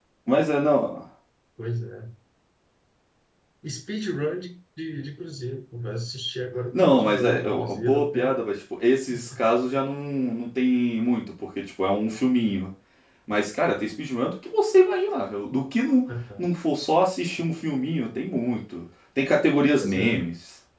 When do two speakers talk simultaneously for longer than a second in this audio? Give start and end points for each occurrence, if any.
6.7-8.4

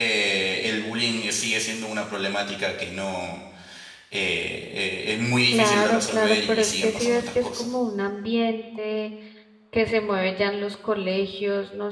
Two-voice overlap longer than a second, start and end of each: 5.5-7.7

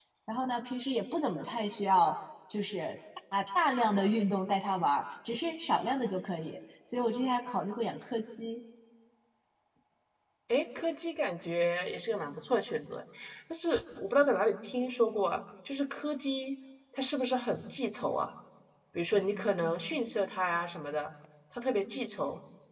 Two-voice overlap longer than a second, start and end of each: none

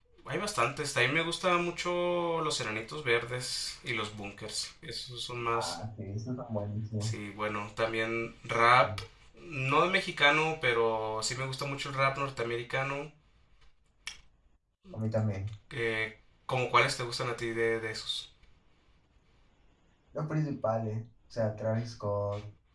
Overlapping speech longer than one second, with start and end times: none

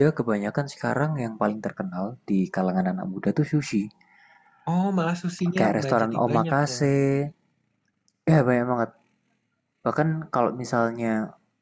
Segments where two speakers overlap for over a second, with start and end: 5.6-6.8

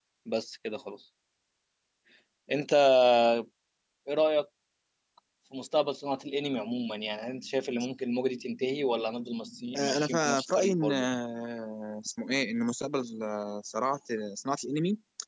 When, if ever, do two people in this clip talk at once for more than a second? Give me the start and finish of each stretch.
9.8-11.1

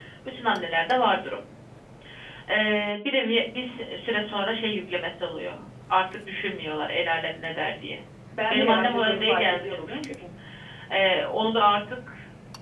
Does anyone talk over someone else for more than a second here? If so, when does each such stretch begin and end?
8.5-10.2

